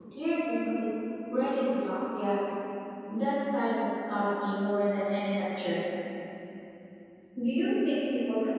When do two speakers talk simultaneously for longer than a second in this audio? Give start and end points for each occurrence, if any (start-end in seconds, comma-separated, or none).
none